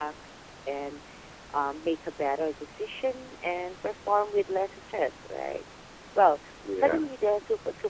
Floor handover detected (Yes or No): No